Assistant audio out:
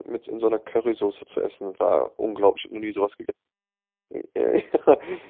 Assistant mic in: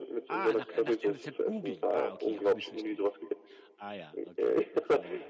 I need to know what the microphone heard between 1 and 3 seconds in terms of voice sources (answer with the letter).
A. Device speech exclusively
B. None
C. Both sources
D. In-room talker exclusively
C